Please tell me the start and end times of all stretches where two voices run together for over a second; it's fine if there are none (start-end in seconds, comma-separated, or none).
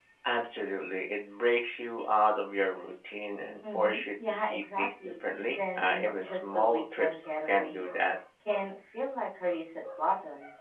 3.8-7.8